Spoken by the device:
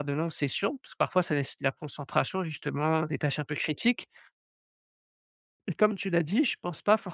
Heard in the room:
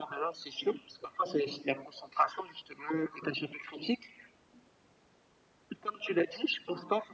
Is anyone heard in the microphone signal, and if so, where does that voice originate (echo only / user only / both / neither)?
echo only